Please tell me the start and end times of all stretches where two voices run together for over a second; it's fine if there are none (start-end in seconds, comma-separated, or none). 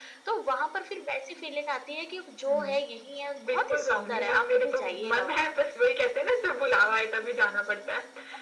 3.5-5.4